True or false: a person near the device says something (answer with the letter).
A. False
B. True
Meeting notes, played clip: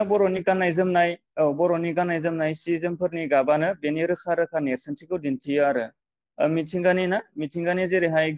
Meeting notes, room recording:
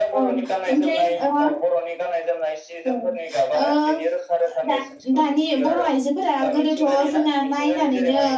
B